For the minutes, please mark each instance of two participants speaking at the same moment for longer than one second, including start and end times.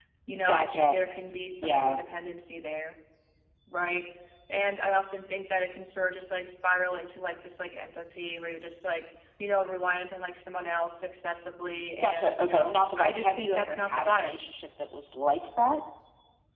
12.0-14.4

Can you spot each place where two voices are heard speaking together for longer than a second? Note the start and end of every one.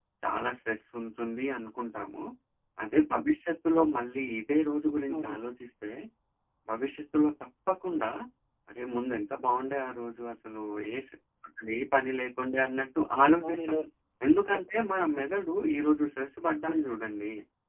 none

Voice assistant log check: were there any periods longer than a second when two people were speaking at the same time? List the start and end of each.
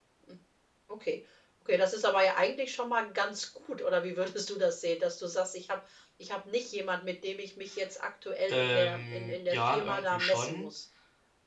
8.5-10.7

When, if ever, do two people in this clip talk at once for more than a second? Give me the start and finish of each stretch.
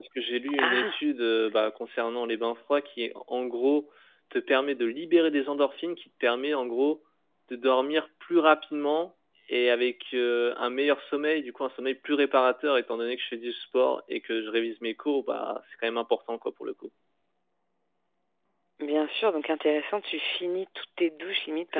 none

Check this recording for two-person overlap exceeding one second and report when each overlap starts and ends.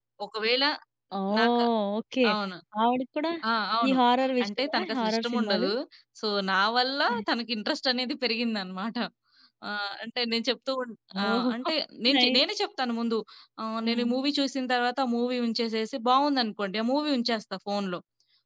4.4-5.7

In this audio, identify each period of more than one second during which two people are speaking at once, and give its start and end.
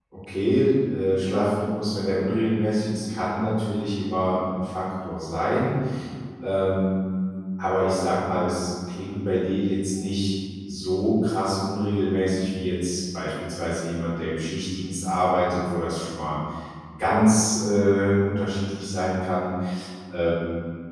none

